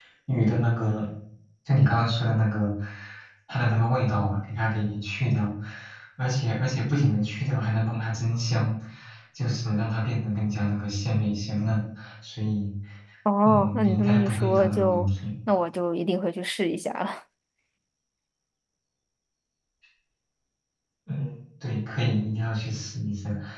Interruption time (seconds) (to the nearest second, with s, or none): 13 s